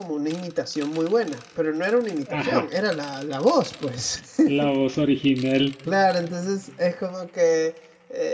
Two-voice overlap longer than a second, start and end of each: none

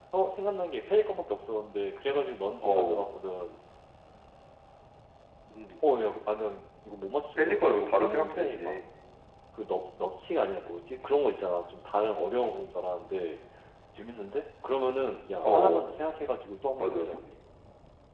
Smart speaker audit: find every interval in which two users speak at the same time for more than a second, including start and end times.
7.4-8.8

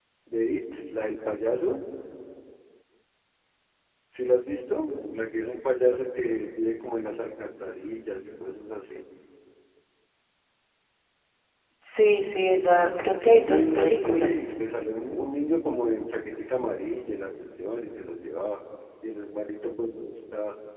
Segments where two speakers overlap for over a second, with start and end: 12.8-14.3

